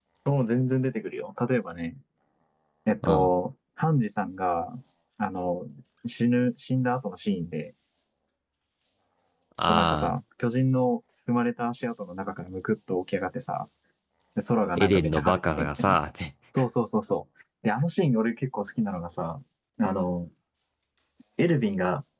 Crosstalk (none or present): present